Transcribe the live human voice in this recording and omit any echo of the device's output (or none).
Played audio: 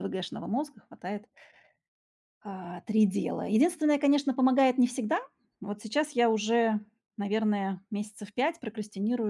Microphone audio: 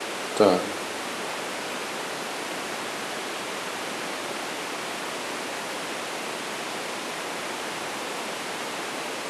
Так.